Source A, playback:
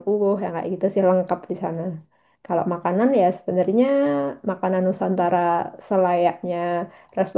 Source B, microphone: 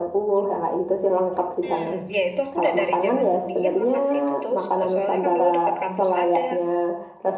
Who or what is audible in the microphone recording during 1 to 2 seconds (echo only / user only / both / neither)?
both